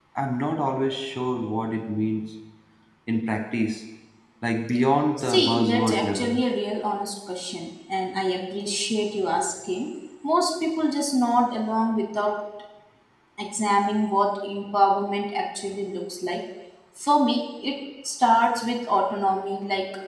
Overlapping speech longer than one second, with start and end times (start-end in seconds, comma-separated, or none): 5.2-6.4